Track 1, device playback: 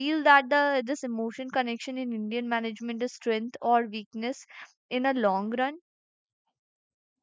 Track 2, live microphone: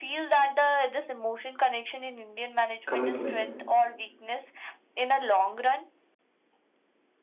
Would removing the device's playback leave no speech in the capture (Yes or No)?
No